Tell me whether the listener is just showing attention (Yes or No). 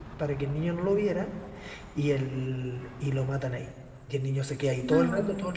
Yes